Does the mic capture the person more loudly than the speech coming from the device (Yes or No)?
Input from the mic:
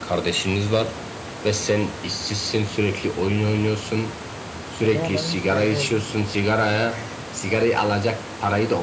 No